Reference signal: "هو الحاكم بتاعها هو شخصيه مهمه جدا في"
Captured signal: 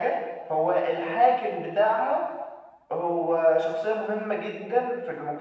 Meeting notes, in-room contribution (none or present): none